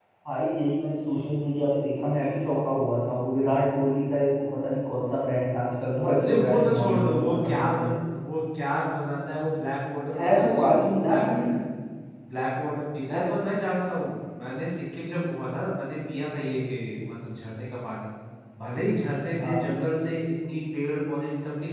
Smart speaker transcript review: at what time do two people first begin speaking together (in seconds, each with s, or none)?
6.2 s